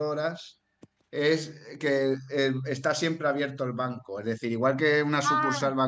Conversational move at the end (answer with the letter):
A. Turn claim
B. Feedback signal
B